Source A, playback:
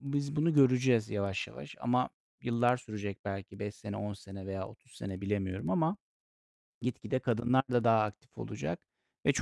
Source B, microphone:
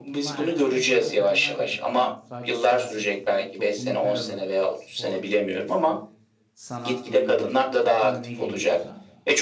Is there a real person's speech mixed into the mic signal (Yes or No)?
Yes